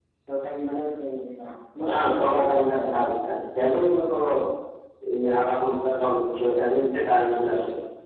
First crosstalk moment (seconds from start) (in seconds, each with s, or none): 1.9 s